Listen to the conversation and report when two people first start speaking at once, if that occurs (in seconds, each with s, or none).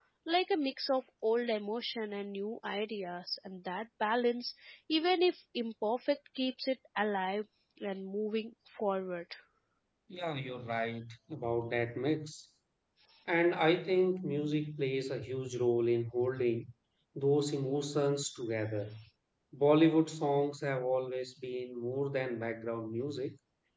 none